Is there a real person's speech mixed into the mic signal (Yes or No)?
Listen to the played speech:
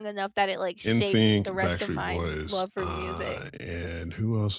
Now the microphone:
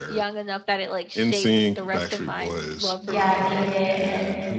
Yes